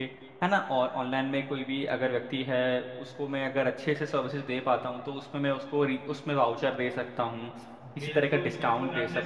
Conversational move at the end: taking over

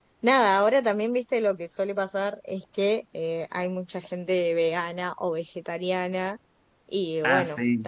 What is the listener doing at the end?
listening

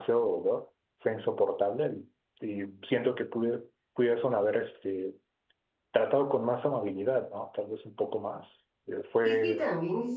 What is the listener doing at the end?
taking over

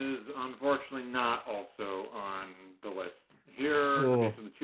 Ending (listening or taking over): listening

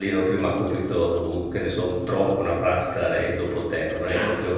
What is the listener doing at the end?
taking over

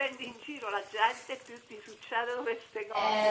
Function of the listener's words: taking over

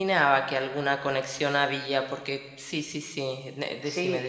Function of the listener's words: taking over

